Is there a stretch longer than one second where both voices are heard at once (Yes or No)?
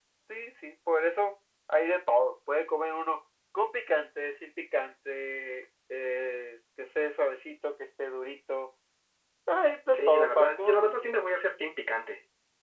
Yes